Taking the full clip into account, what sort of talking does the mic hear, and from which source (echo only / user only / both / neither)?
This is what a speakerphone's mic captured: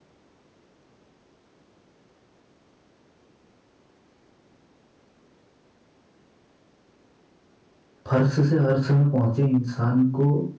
user only